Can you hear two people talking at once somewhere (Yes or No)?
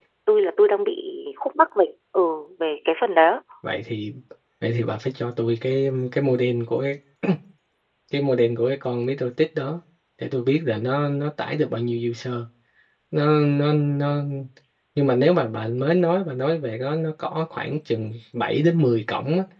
No